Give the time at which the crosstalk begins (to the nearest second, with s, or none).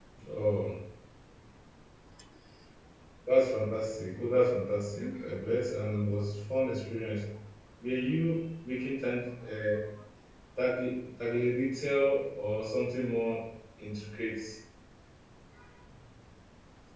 none